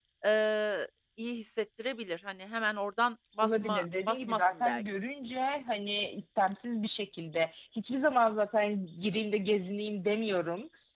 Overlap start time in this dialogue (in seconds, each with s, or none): 3.4 s